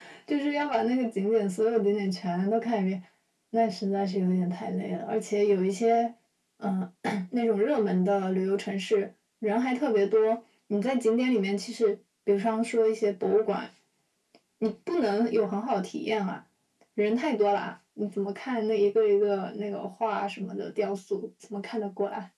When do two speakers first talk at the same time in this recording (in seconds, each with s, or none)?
none